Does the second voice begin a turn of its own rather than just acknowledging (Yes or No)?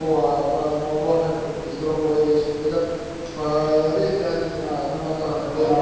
Yes